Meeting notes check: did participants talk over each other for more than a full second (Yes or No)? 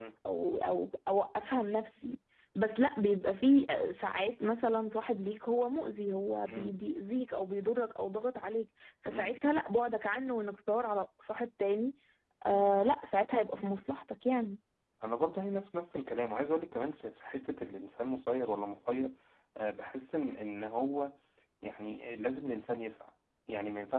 No